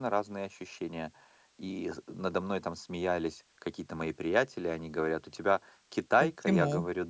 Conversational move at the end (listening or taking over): listening